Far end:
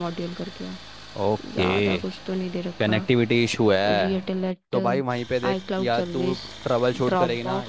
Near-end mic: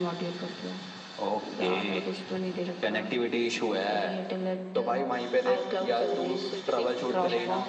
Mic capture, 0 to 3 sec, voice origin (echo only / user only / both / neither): echo only